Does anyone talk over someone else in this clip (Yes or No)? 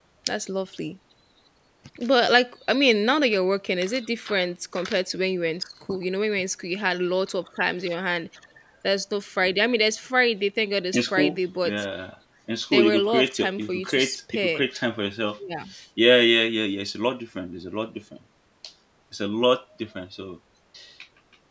Yes